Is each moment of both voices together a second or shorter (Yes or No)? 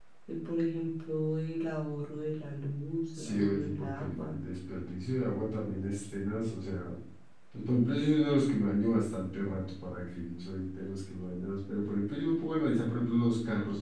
No